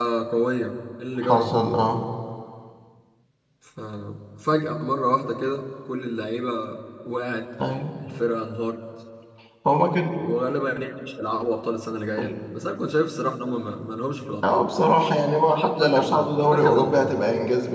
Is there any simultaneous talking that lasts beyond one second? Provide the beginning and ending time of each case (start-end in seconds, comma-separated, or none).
15.8-17.2